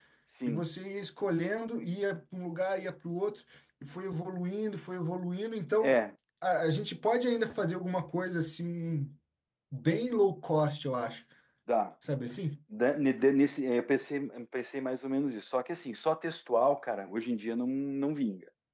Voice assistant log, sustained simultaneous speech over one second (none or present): none